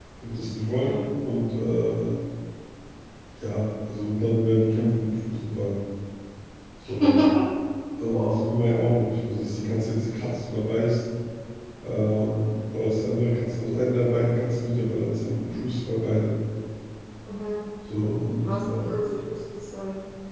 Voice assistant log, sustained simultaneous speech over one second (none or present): none